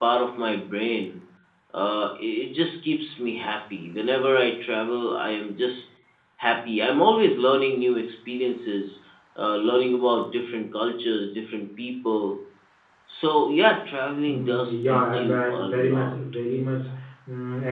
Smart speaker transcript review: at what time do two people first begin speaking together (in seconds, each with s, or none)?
14.3 s